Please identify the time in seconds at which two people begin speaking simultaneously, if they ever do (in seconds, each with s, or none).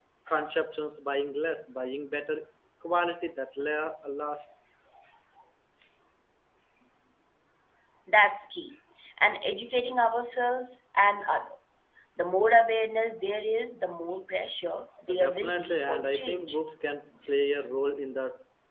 15.1 s